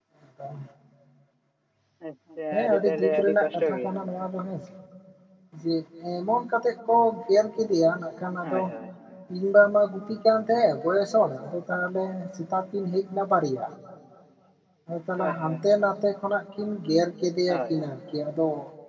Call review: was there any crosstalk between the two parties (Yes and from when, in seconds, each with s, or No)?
Yes, from 2.5 s